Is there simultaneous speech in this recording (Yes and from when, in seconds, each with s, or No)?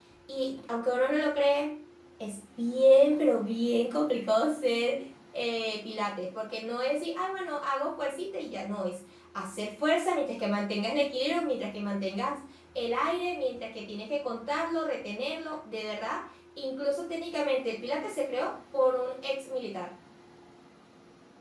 No